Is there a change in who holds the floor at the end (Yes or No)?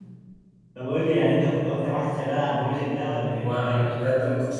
Yes